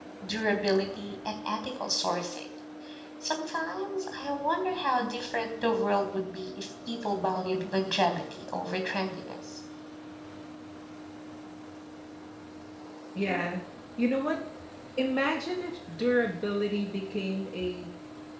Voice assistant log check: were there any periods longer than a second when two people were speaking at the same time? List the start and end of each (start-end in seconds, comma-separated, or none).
none